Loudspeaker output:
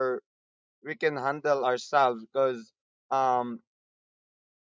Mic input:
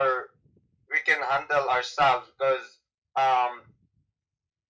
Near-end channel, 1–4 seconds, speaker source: echo only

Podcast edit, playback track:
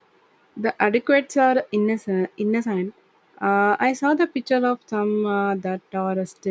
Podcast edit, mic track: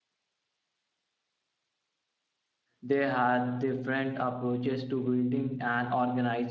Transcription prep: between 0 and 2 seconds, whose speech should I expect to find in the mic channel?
neither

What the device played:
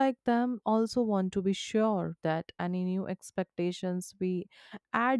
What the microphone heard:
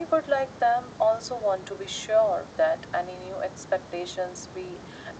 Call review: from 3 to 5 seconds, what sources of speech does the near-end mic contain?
echo only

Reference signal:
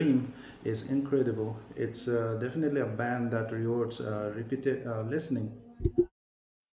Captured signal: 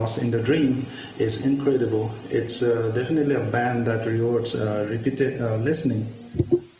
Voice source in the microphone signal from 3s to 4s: echo only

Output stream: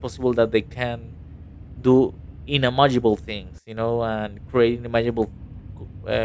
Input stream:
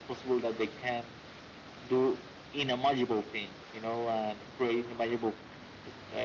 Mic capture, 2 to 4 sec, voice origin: echo only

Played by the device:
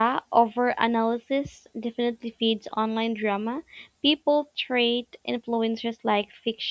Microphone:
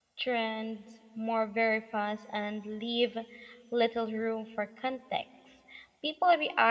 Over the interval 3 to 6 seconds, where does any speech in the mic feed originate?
user only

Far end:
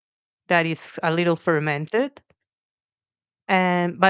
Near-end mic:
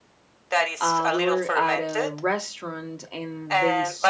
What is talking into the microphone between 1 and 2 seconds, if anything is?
both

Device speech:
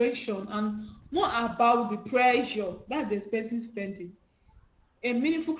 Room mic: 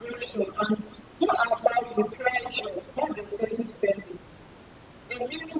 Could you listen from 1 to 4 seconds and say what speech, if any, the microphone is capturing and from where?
echo only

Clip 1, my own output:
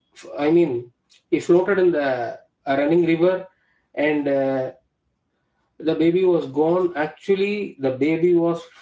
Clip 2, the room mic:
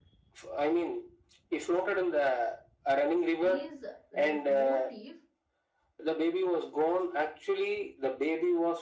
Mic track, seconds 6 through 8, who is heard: echo only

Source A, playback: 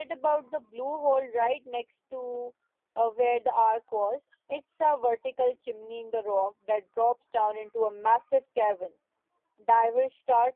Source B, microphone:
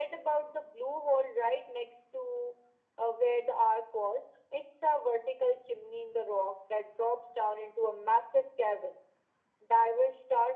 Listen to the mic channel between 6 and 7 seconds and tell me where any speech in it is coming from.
echo only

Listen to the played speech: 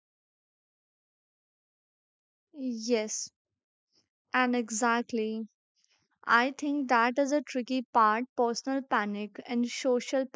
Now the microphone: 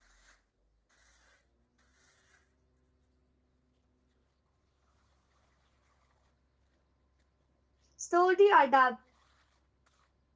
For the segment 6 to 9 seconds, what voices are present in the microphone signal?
user only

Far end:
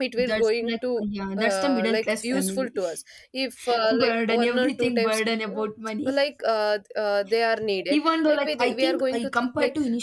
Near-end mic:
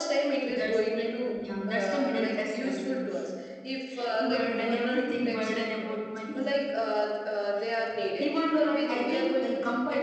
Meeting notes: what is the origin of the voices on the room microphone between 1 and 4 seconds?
echo only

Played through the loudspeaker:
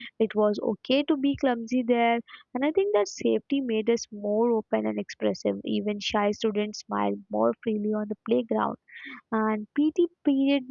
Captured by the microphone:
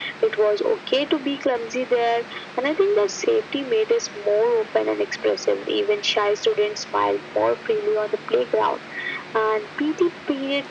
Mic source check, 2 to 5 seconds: echo only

